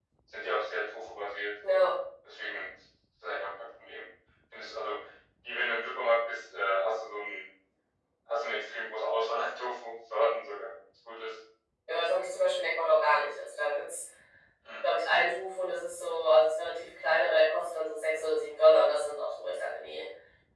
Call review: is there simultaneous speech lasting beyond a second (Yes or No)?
No